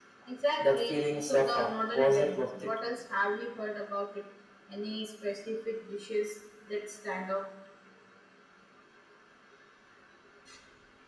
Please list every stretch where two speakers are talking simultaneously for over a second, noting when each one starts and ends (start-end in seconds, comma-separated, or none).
0.6-2.7